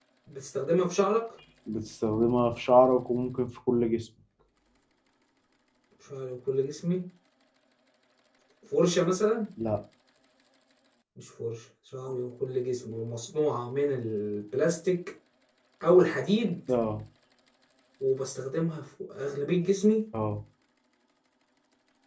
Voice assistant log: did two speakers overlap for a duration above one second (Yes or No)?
No